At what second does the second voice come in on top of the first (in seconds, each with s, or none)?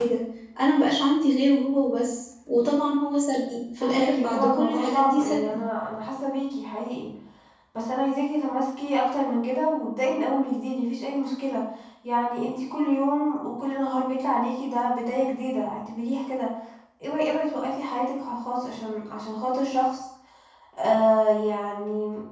3.8 s